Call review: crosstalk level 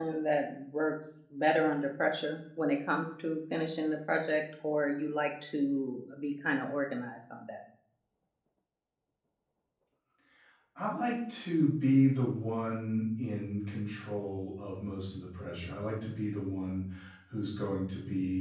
none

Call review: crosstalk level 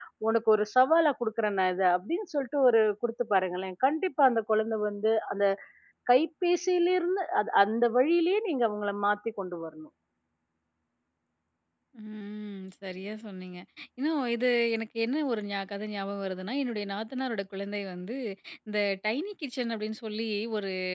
none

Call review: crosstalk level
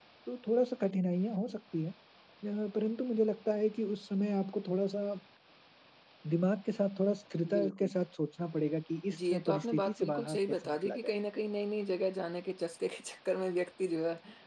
present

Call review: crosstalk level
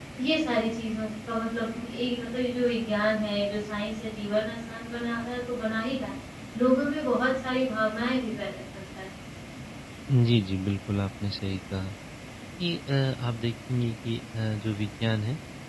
none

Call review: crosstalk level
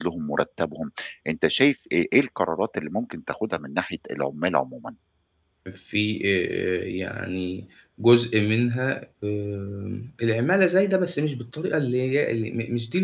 none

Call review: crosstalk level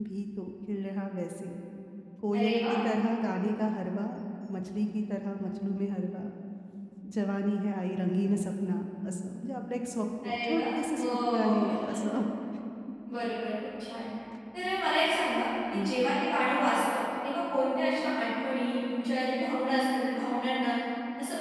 present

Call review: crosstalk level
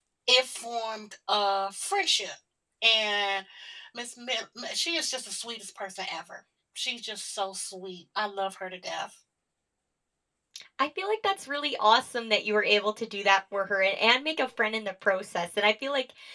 none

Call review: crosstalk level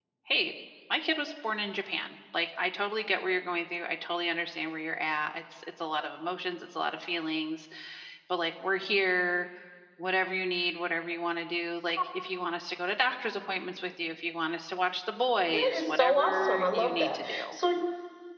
present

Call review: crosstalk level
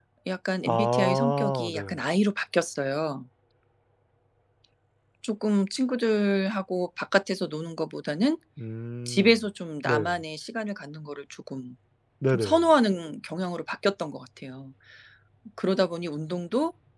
present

